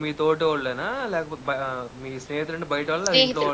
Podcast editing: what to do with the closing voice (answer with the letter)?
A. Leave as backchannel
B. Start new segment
B